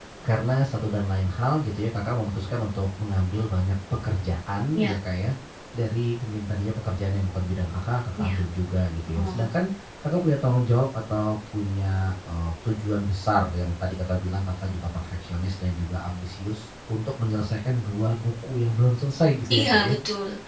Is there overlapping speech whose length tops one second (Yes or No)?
No